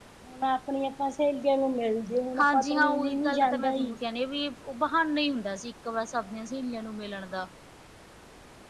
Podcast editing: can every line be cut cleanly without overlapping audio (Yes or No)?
No